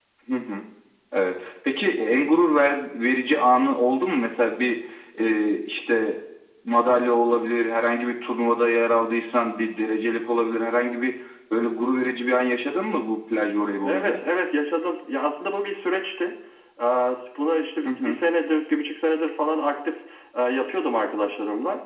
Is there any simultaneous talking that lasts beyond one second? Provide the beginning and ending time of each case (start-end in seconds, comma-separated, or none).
none